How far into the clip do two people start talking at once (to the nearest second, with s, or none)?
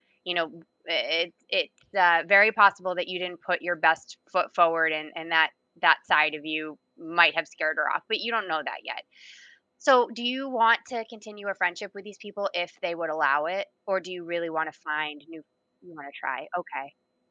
none